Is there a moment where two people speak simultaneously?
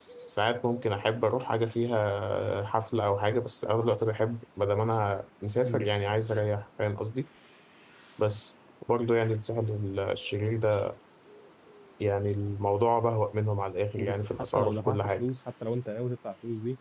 Yes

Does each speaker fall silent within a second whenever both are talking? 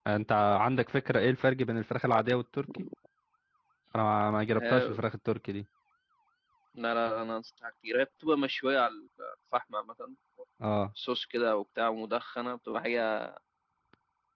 Yes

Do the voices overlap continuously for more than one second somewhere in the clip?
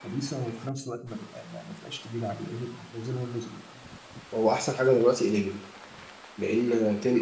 No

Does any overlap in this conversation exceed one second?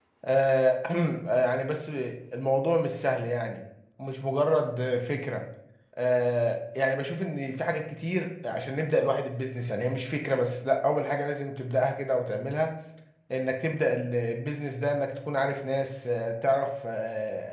No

